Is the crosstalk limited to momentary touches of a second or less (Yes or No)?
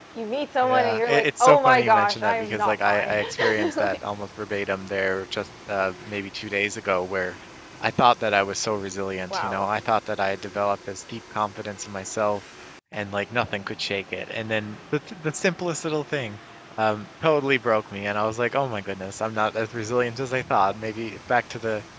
No